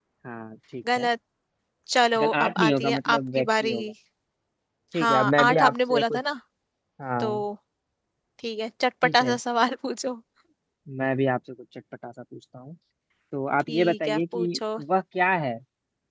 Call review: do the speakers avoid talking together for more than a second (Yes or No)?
No